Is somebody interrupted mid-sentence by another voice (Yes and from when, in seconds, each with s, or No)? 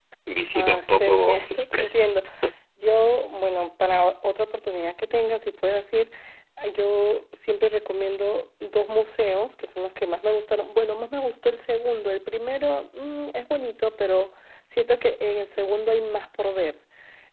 Yes, from 0.6 s